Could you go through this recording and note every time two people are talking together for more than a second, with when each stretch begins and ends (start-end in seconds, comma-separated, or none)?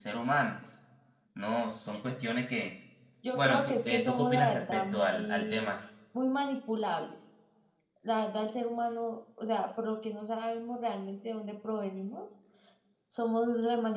3.3-5.7